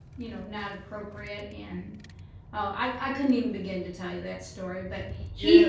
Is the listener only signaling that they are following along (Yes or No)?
No